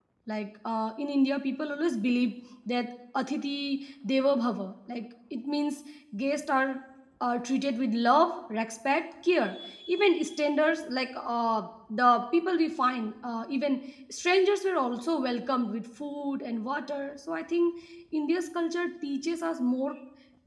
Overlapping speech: No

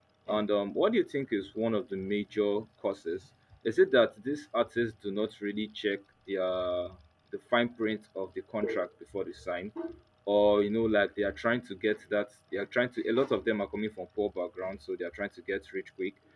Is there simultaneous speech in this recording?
No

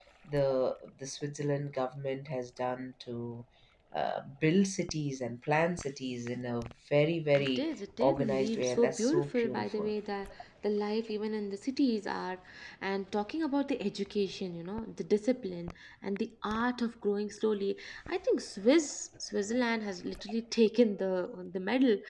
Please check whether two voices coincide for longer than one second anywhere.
Yes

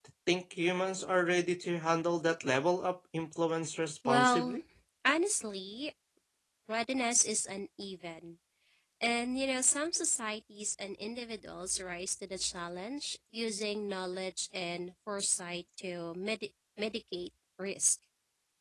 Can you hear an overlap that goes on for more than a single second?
No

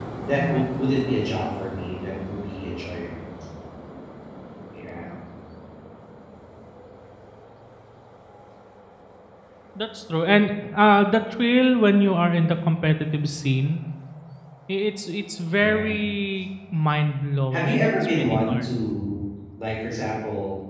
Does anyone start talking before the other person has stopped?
Yes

